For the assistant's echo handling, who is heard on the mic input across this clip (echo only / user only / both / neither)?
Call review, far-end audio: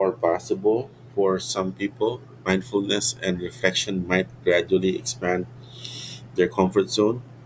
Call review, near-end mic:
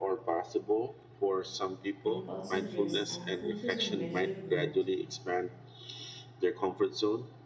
both